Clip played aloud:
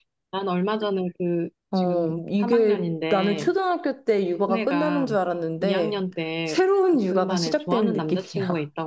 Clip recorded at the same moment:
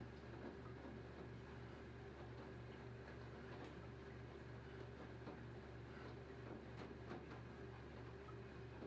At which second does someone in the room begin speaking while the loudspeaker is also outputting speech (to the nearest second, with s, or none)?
none